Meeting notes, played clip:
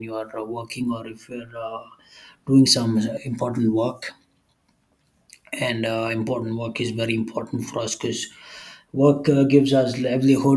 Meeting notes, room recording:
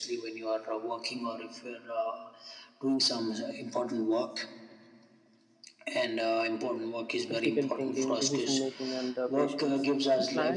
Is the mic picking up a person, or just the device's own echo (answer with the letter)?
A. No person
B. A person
B